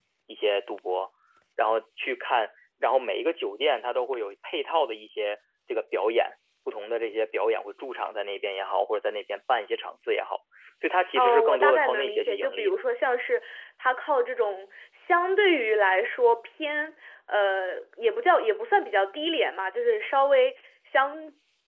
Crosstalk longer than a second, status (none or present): present